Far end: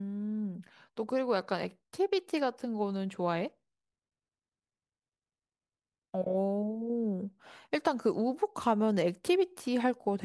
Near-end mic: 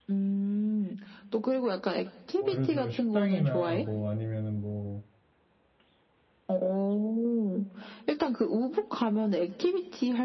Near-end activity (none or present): present